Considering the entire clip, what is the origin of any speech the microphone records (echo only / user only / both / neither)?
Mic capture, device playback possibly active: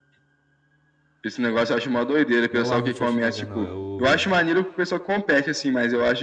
both